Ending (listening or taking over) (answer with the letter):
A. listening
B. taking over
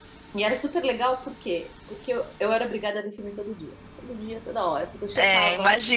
B